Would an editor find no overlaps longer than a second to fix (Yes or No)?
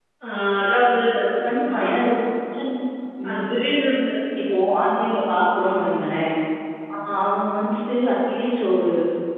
Yes